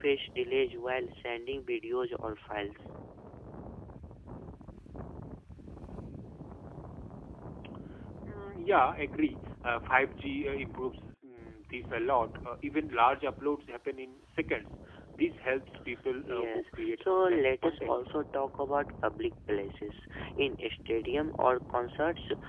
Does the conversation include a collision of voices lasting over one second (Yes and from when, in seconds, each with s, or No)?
Yes, from 16.3 s